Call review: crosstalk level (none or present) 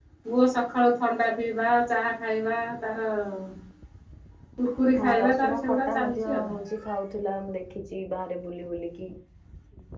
present